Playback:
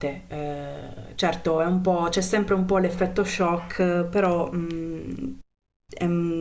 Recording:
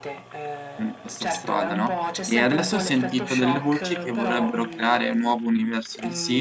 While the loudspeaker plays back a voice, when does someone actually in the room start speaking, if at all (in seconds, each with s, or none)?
0.8 s